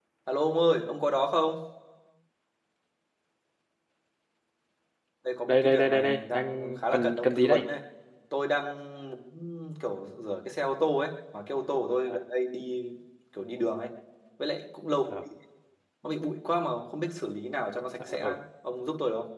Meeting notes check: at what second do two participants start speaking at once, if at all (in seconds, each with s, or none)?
5.5 s